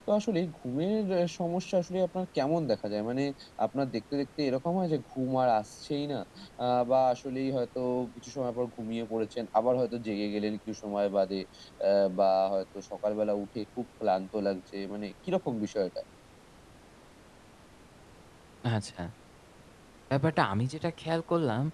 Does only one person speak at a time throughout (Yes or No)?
Yes